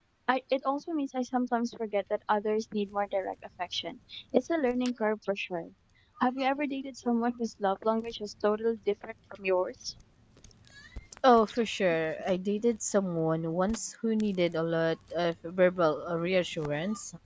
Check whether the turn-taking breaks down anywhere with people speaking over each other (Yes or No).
No